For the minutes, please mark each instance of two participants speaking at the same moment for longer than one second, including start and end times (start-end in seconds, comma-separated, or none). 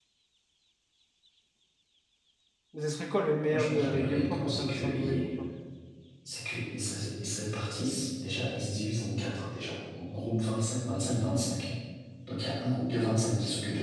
3.5-5.3